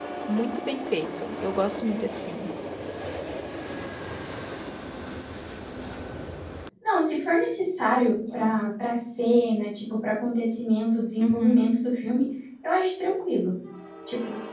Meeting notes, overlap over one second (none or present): none